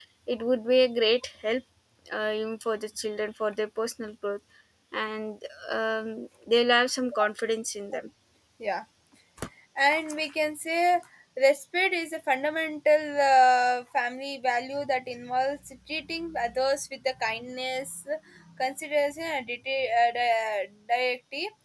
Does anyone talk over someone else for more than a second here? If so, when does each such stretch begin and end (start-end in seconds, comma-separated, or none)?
none